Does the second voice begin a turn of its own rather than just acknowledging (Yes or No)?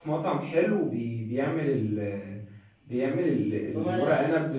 No